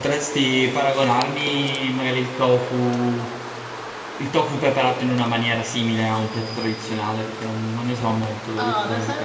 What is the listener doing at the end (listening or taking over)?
taking over